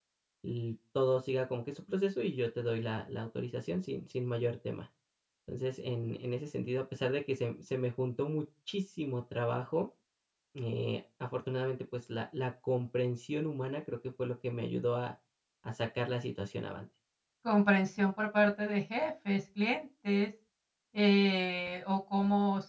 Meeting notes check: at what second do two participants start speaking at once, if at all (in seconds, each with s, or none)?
none